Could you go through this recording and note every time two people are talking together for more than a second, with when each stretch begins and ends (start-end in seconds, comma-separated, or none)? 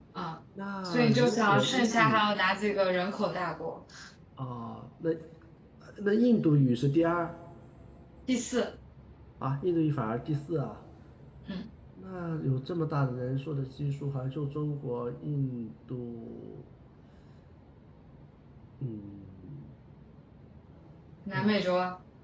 0.8-2.3